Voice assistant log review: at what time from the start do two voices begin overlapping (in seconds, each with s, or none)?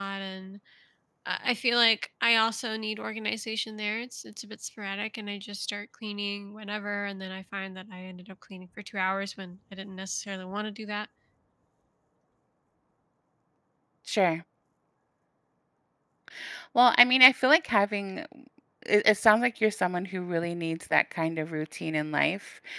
none